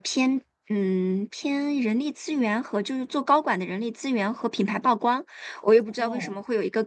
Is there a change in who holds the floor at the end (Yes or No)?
No